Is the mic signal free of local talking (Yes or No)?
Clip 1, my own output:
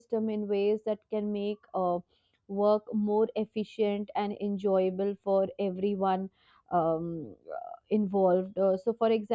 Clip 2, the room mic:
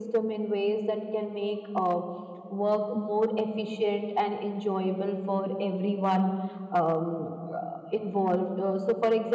Yes